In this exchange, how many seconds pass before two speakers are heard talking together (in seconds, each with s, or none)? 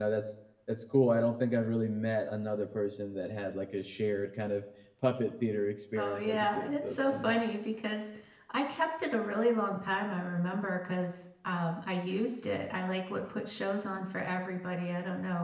6.0 s